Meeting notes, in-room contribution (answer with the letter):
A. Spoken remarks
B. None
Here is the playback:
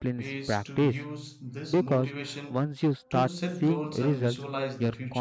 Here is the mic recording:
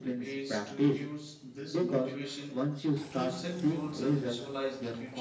B